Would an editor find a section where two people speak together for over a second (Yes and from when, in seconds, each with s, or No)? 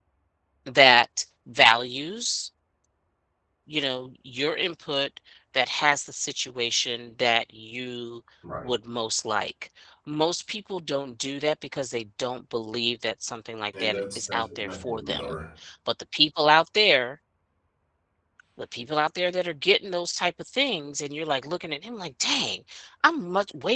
Yes, from 13.7 s